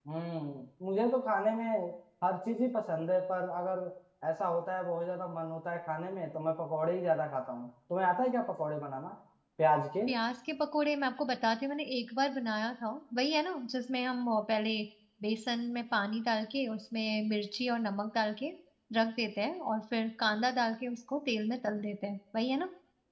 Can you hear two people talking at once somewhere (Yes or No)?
No